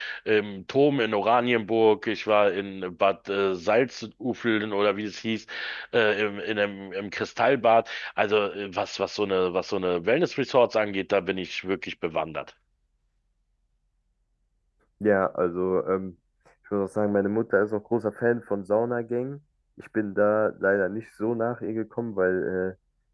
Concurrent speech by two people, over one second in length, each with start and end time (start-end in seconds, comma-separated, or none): none